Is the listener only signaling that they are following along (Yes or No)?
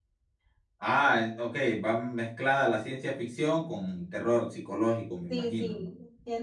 No